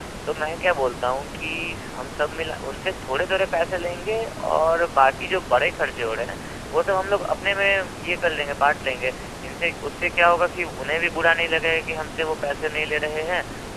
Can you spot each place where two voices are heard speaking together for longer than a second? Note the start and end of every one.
none

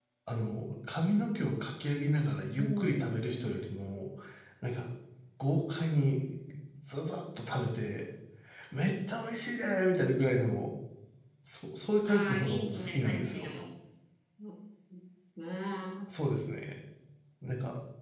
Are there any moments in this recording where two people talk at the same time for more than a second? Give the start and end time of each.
12.1-13.5

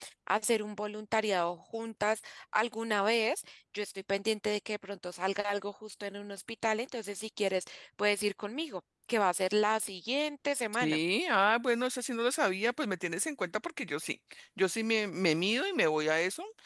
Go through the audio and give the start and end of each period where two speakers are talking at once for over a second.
none

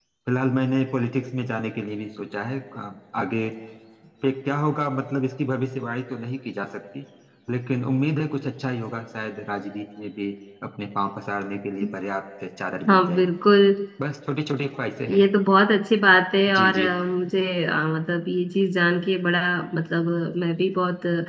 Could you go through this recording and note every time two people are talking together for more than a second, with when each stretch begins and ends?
none

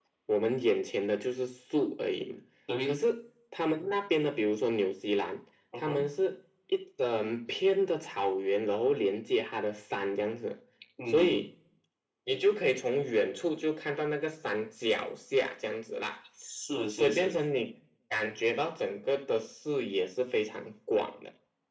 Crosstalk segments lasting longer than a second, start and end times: none

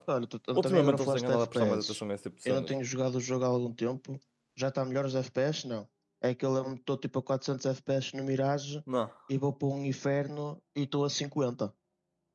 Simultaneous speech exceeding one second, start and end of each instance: 0.5-2.0

